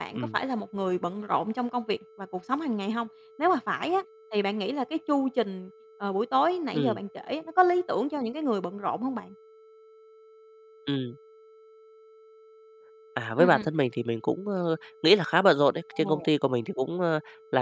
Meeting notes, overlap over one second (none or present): none